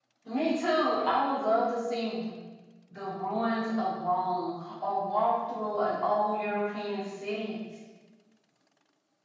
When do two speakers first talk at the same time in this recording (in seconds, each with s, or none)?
none